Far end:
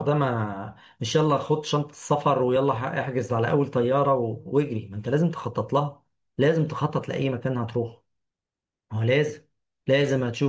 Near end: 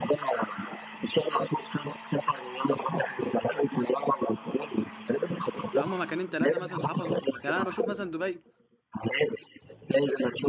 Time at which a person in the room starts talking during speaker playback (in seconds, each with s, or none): 5.8 s